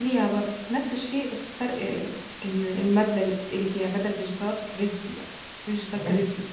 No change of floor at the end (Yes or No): No